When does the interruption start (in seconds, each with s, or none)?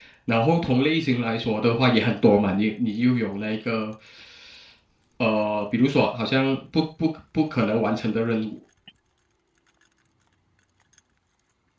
none